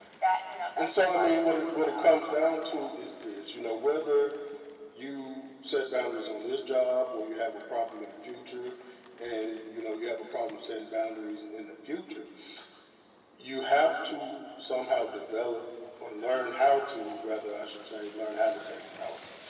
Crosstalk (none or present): present